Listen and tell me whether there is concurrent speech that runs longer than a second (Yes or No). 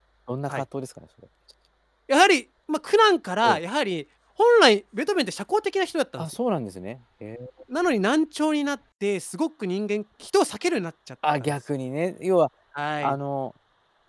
No